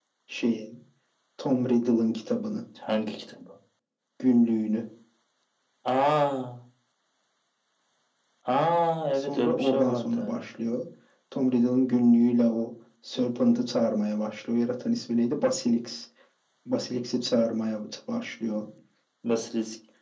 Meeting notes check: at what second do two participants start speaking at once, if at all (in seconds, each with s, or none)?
9.1 s